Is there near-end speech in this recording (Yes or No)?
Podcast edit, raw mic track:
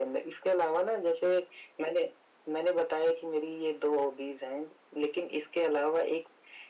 No